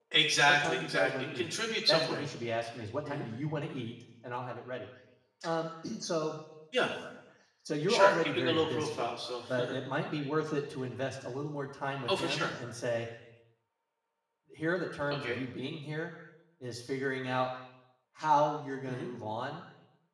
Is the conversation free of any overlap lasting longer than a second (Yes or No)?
No